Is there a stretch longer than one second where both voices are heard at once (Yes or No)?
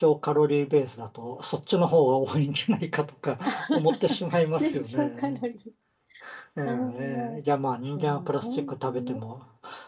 Yes